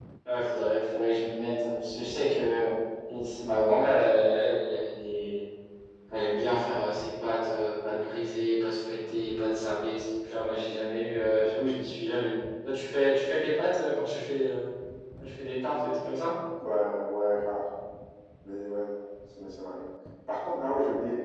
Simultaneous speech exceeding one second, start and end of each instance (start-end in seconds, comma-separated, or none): none